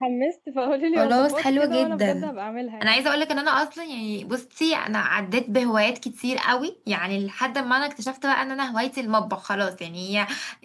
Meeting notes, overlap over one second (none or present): present